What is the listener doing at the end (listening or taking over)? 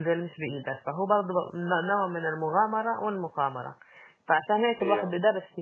listening